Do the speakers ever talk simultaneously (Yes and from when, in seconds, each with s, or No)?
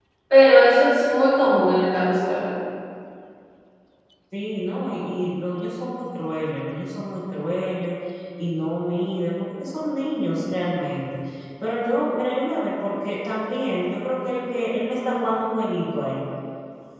No